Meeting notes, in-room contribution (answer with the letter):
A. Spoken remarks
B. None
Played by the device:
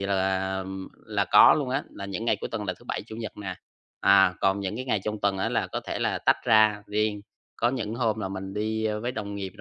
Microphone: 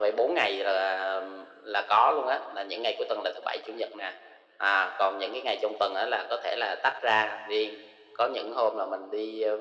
B